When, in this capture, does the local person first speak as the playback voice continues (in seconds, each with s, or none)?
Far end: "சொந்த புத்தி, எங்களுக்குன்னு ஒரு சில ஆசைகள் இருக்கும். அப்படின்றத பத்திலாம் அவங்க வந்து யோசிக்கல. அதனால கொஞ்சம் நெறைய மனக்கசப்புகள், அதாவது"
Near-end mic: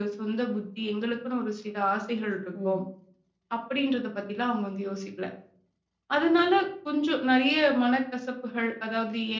2.5 s